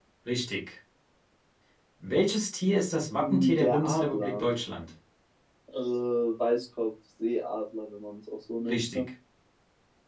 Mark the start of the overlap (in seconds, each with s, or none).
3.2 s